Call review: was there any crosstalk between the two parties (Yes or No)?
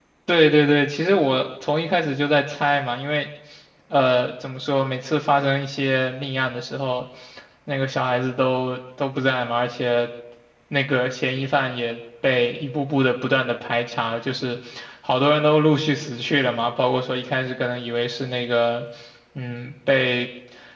No